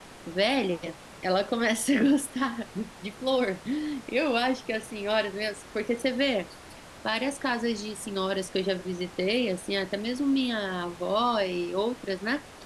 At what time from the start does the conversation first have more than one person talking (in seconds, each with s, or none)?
none